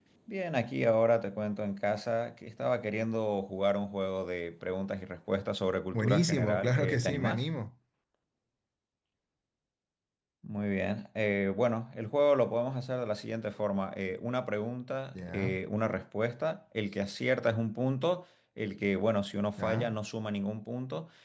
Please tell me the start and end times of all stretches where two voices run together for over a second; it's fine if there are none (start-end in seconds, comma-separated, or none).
5.9-7.4